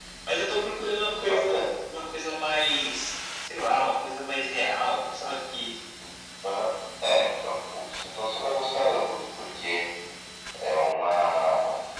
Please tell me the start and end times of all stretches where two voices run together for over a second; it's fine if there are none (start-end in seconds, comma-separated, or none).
none